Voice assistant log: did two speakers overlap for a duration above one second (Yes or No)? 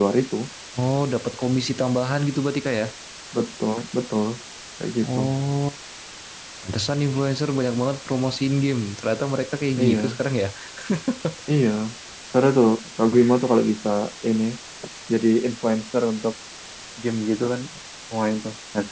No